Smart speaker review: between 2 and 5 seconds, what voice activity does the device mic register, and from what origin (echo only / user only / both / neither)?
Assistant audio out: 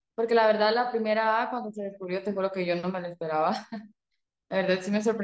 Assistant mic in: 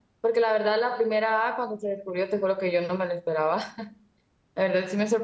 echo only